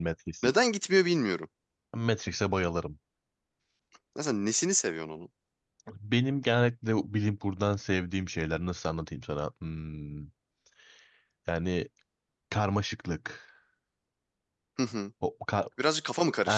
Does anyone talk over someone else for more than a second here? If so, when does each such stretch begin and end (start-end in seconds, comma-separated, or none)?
none